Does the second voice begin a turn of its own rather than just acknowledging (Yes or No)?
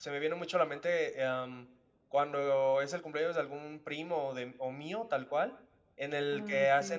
No